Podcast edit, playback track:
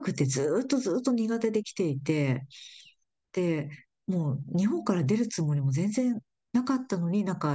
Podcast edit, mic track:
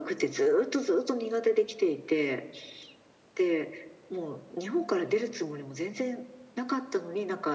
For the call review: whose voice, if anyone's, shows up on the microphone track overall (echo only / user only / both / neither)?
echo only